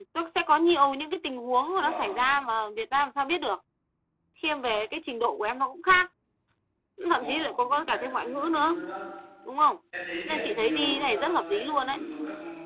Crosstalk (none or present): present